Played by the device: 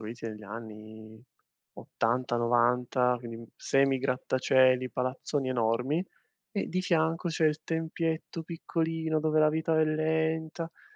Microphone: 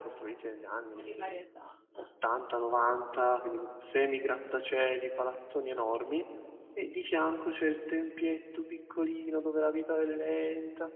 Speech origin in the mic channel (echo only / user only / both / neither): both